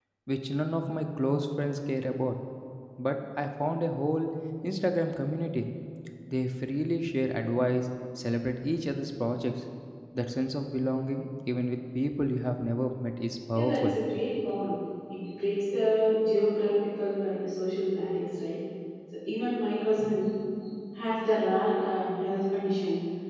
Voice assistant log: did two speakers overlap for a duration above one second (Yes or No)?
No